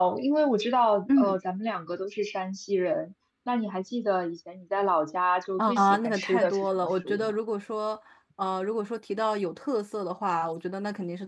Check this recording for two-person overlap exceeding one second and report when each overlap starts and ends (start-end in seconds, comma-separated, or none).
5.6-7.3